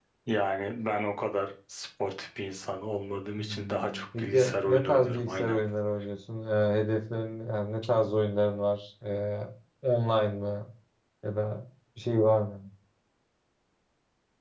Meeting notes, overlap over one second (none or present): present